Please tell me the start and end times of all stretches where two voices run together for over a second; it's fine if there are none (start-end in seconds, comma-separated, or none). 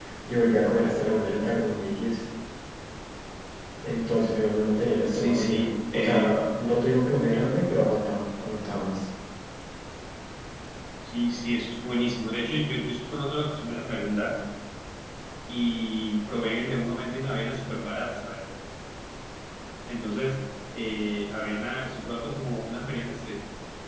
5.1-6.3